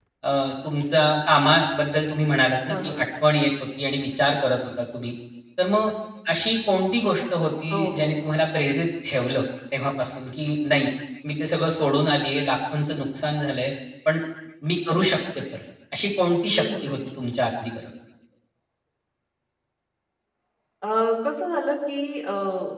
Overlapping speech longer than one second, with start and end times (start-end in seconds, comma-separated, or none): none